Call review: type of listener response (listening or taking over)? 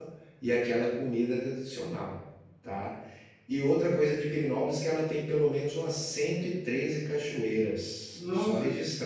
listening